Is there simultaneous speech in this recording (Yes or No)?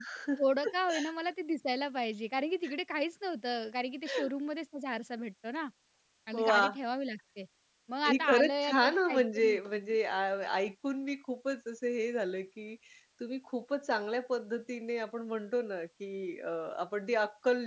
Yes